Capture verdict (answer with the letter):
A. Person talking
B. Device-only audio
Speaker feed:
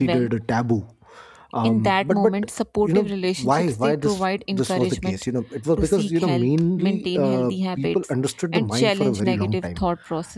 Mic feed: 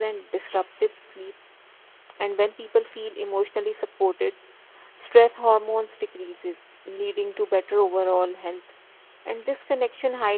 A